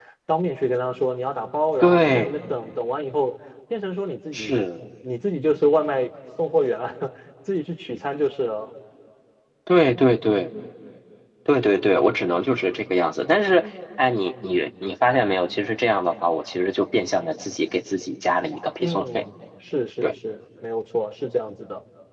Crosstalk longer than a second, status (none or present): none